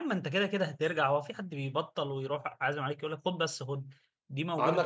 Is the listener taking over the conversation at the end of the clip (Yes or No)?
No